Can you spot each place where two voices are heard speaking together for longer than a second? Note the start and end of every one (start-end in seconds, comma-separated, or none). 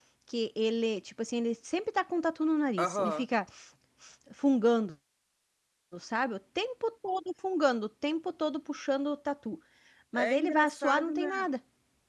10.2-11.5